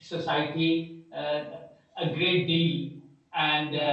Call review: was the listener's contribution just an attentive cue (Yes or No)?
Yes